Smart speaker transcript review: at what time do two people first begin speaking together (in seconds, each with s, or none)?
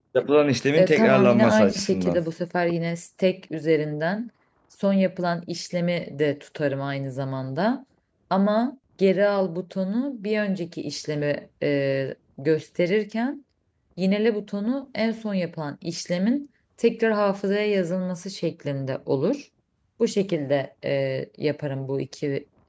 0.8 s